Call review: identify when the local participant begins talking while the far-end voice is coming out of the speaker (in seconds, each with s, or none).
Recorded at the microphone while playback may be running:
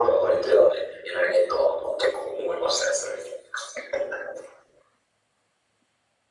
none